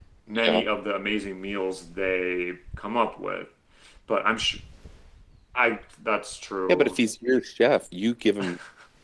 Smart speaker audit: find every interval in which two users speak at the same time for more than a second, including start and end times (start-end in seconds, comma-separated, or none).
none